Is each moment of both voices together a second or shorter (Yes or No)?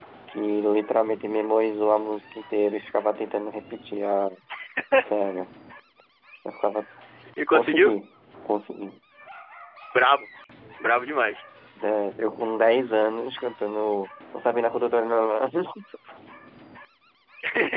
Yes